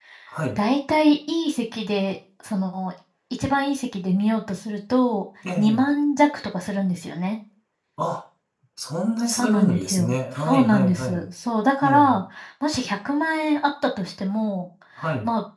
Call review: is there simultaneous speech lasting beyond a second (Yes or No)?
Yes